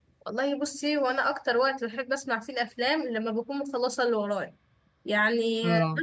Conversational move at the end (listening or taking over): listening